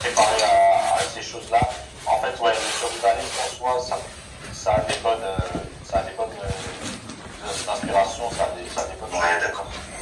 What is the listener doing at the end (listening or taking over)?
taking over